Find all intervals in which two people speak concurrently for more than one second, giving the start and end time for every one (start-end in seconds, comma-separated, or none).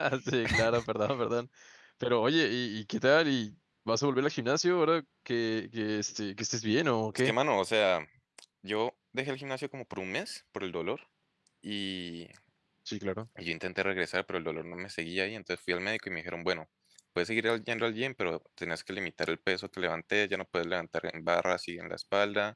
none